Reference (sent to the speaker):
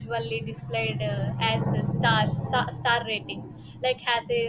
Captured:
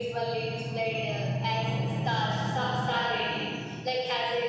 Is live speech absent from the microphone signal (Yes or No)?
Yes